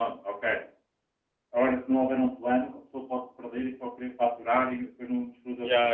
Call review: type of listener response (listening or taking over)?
taking over